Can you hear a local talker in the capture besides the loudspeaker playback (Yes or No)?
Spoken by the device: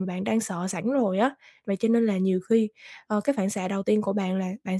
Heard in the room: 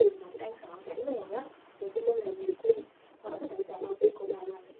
No